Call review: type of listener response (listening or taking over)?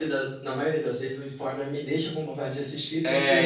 taking over